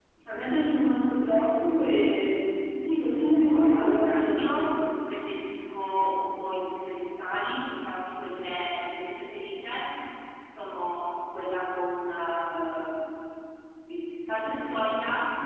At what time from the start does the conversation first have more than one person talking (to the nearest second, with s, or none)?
3 s